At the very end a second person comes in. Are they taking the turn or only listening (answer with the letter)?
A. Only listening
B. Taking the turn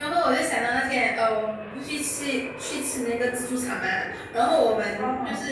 A